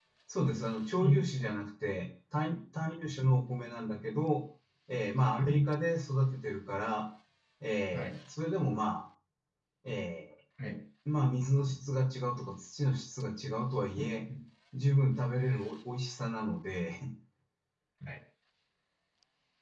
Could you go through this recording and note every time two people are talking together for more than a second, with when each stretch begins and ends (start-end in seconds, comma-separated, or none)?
none